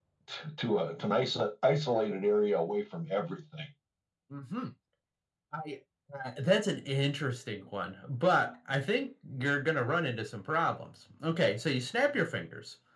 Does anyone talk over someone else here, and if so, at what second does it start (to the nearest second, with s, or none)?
none